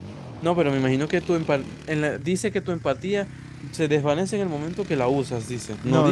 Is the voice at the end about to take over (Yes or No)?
Yes